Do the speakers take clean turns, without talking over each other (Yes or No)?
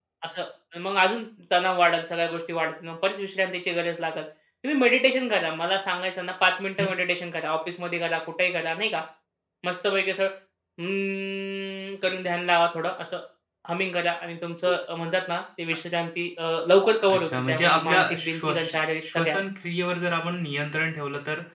No